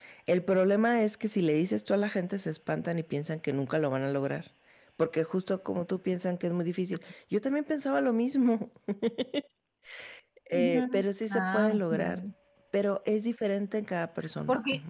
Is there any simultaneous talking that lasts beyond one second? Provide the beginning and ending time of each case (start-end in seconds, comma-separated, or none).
10.5-12.2